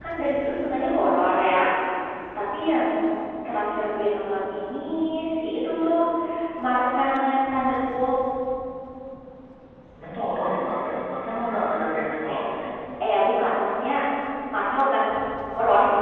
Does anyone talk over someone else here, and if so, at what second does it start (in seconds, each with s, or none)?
none